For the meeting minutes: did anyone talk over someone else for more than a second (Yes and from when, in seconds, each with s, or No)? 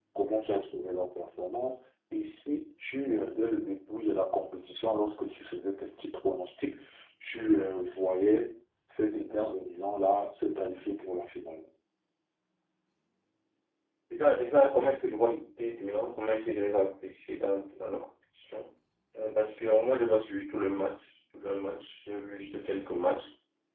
No